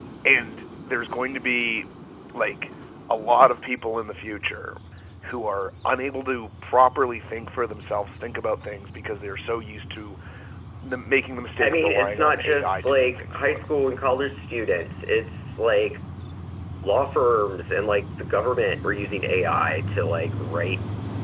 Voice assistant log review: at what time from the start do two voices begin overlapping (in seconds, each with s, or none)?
11.6 s